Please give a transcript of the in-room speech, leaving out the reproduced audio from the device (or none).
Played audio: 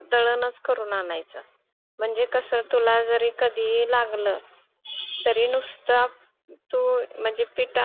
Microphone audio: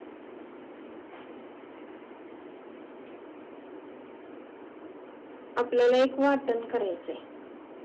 आपल्याला एक वाटण करायचंय.